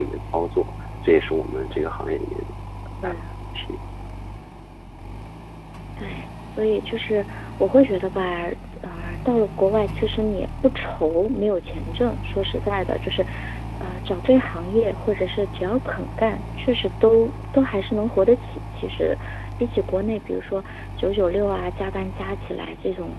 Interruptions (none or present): none